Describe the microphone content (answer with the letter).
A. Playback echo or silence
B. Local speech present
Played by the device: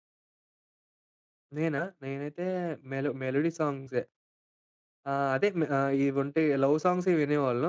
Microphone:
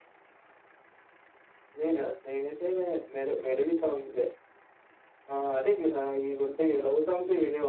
B